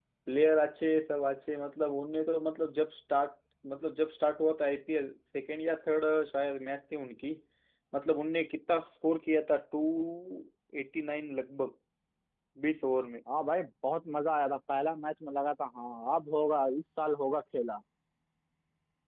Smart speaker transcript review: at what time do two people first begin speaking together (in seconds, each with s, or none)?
none